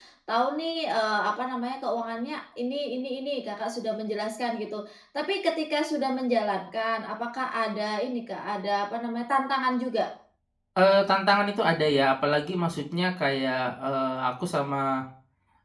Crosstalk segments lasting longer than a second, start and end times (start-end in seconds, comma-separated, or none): none